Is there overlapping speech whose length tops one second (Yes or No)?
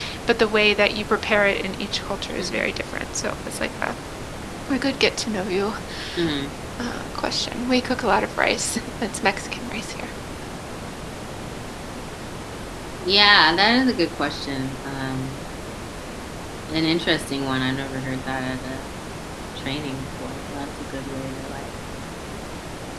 No